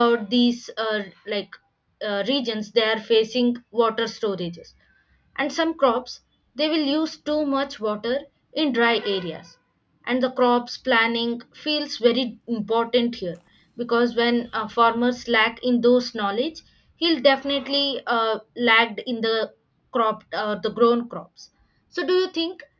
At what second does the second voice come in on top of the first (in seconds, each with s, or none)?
none